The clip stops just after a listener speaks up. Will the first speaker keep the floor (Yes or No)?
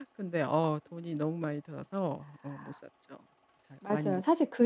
No